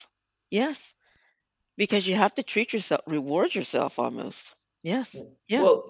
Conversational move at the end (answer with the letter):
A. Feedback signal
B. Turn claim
B